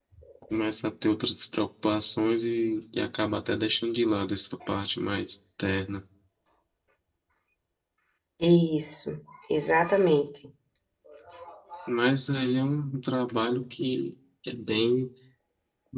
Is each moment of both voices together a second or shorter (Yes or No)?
Yes